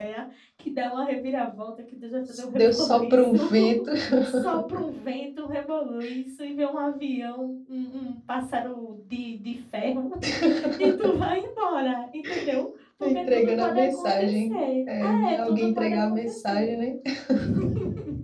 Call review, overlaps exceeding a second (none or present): present